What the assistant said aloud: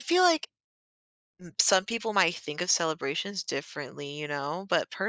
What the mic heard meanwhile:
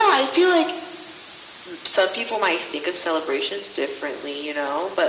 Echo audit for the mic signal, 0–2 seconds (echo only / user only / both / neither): echo only